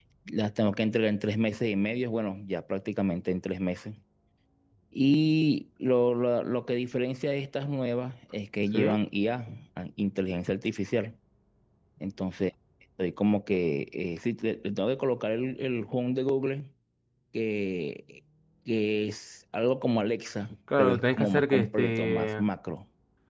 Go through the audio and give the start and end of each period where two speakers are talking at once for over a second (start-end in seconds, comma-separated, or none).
20.8-22.4